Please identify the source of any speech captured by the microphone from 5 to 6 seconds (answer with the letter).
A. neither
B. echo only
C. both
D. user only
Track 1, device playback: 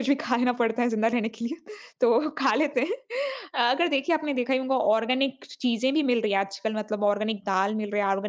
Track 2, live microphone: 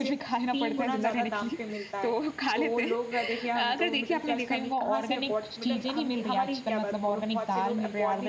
C